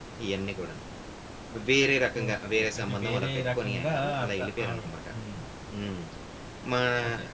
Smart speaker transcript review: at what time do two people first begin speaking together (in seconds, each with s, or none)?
2.2 s